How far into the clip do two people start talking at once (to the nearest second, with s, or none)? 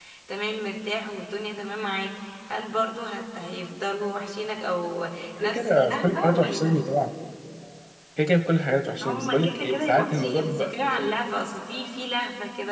5 s